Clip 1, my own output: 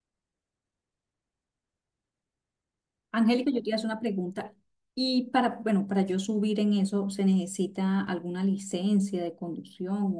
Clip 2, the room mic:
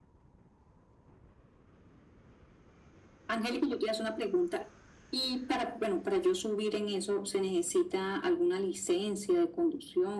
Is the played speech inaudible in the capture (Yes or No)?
No